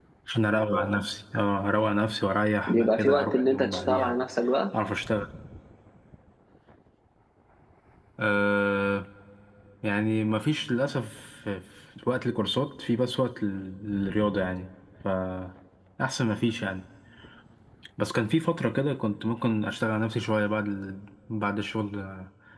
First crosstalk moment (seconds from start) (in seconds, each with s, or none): 2.7 s